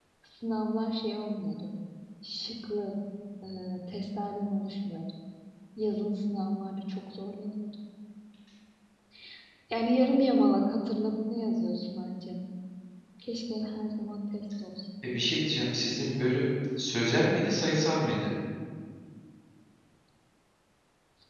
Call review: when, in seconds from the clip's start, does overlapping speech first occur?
none

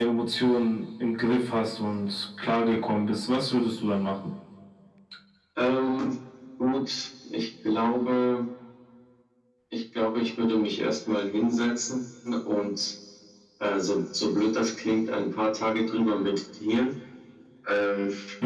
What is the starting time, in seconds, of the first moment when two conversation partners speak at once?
none

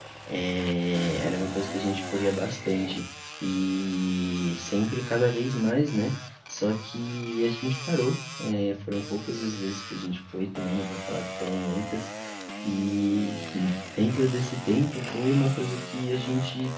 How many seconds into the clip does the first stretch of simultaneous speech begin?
none

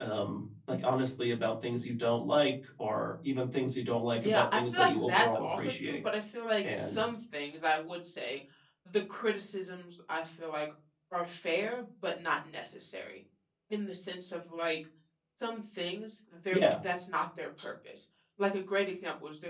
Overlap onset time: 4.1 s

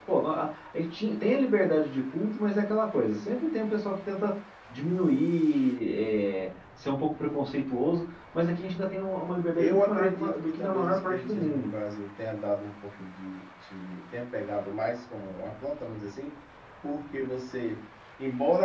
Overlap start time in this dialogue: 9.6 s

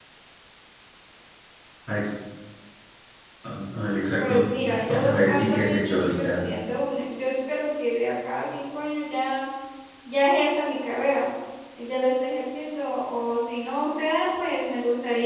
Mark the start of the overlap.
3.7 s

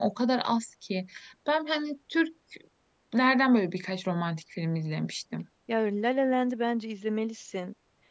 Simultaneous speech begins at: none

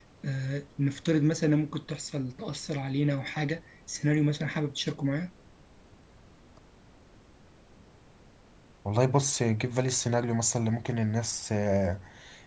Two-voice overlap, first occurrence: none

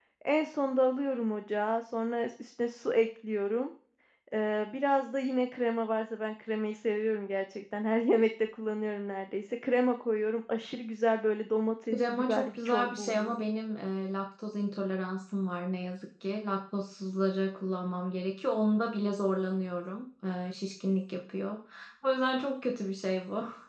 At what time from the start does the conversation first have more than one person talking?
11.9 s

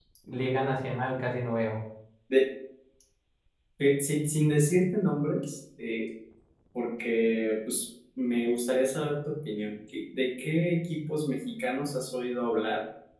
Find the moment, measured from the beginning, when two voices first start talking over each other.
none

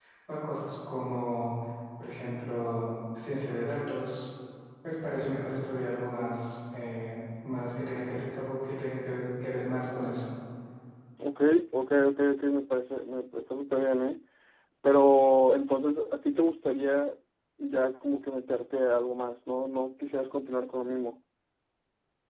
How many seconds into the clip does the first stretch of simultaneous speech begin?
none

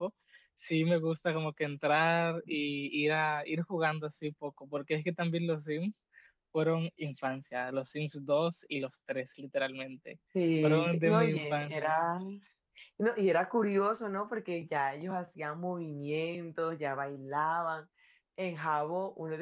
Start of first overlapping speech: 10.6 s

